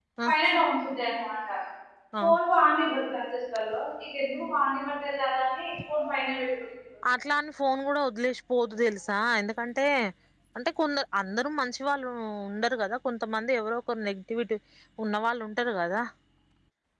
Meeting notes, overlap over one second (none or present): none